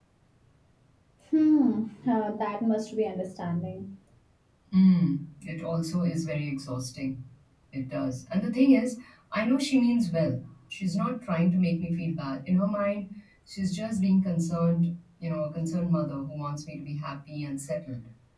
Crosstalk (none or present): none